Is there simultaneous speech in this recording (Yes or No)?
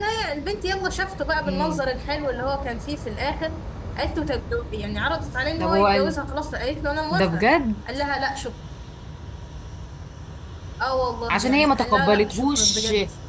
Yes